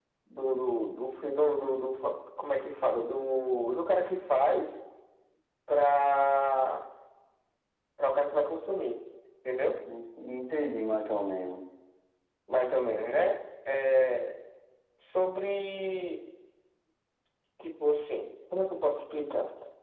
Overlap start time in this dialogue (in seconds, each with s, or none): none